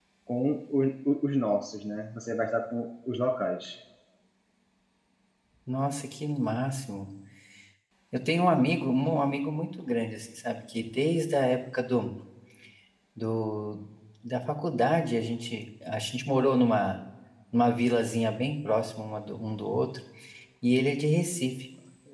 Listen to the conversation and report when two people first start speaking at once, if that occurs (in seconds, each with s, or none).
none